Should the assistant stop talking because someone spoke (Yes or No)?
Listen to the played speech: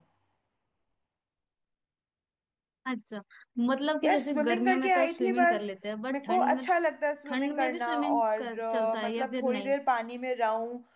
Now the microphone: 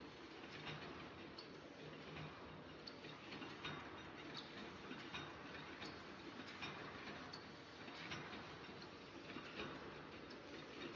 No